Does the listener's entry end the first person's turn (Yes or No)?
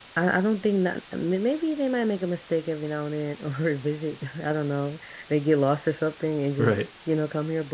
No